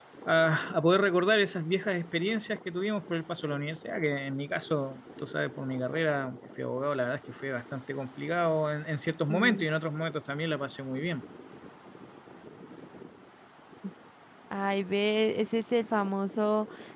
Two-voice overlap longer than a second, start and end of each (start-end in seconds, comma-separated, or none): none